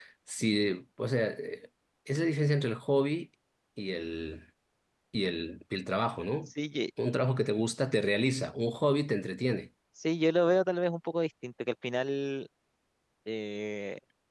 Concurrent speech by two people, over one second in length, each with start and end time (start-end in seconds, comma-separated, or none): none